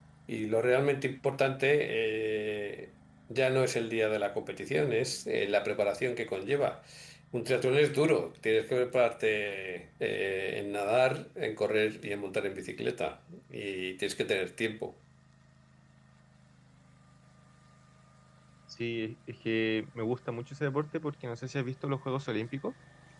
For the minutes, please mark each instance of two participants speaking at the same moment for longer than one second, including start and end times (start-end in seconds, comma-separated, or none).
none